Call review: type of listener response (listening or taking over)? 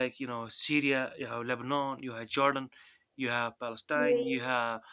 listening